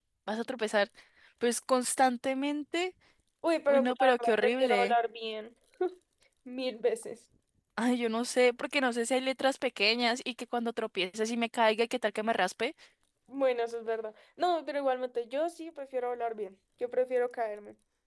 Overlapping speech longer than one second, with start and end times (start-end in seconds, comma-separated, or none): 3.7-4.9